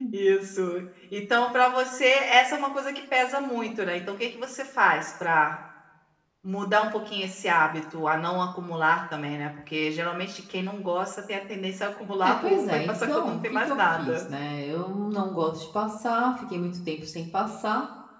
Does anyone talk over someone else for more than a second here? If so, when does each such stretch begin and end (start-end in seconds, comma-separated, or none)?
12.2-14.2